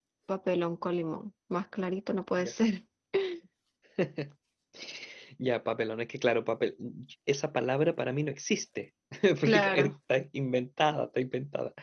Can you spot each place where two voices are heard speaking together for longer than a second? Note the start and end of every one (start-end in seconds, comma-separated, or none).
none